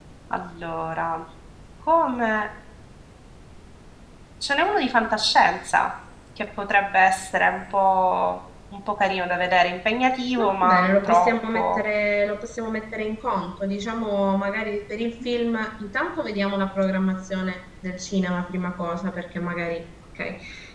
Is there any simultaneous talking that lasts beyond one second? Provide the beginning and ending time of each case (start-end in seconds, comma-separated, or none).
10.4-11.8